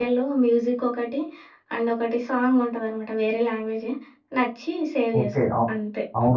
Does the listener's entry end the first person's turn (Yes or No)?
Yes